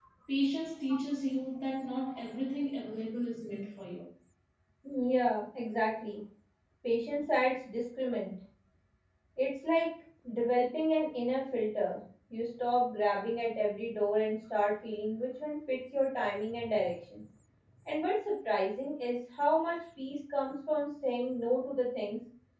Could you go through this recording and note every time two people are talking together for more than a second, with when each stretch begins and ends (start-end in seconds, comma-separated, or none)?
none